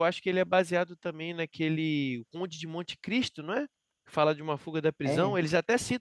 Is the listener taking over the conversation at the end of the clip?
No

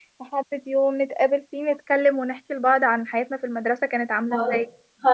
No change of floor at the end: No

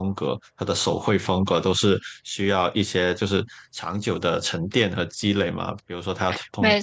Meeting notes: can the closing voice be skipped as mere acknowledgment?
Yes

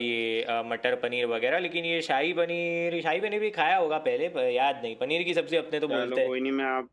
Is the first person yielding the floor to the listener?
Yes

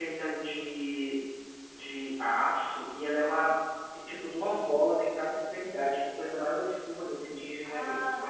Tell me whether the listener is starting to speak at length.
Yes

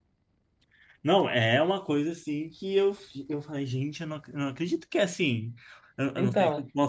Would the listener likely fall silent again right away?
Yes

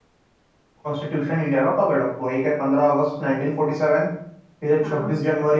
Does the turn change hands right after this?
No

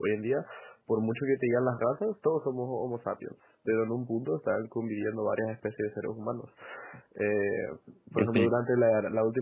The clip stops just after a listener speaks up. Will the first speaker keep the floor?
Yes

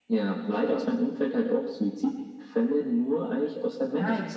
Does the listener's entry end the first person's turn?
No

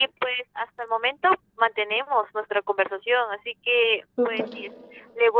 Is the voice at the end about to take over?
No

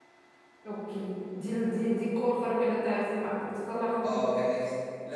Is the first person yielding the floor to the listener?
Yes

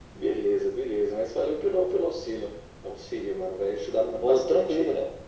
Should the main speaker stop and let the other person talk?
Yes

